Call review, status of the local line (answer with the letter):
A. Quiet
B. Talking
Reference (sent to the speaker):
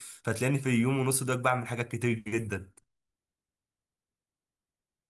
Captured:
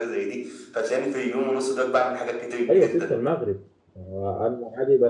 B